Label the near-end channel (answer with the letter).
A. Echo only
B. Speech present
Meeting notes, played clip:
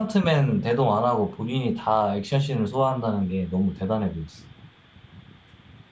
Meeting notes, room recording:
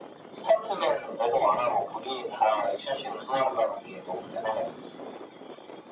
A